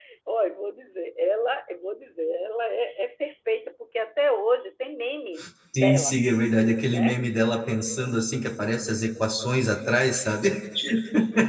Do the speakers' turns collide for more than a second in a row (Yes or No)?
No